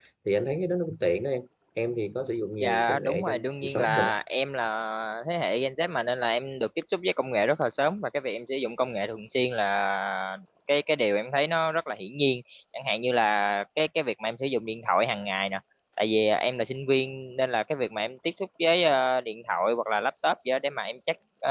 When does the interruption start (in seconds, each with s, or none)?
2.6 s